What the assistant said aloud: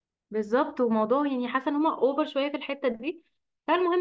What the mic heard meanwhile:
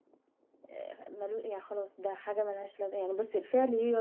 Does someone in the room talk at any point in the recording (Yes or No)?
Yes